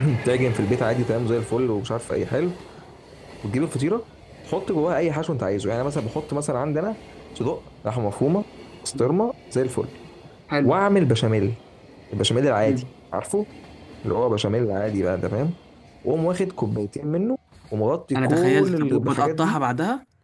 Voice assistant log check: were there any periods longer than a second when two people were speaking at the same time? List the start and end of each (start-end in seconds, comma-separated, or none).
18.1-19.6